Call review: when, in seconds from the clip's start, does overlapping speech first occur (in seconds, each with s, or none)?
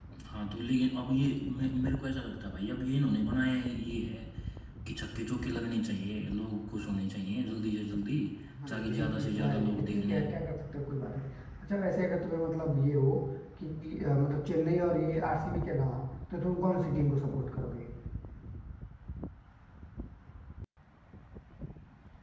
8.7 s